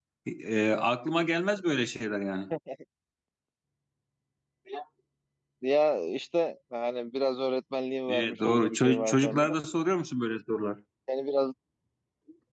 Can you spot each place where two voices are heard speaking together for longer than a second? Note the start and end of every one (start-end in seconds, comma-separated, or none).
8.1-9.6